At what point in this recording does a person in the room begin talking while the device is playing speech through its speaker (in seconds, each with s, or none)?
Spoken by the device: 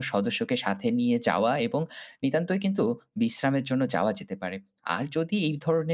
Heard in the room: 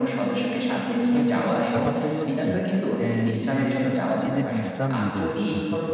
1.1 s